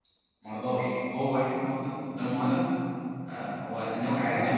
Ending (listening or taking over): listening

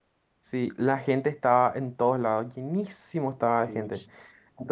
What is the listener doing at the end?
listening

